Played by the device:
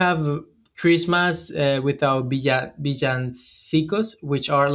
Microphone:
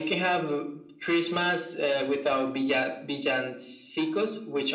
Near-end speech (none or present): none